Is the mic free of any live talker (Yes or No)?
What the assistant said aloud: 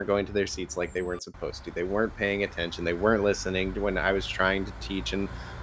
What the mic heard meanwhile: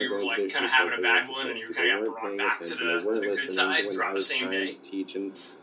No